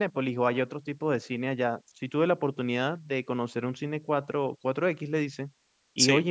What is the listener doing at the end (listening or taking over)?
listening